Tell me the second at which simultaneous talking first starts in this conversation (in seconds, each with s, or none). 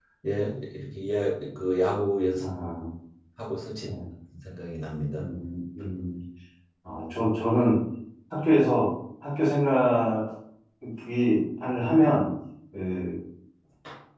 none